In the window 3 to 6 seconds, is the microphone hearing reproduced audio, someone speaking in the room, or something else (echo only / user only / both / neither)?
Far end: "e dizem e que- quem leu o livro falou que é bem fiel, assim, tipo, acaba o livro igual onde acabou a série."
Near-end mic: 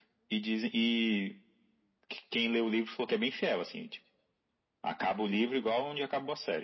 echo only